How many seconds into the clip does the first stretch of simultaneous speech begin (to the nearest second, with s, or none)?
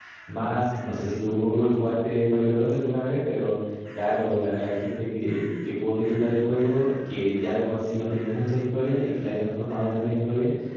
none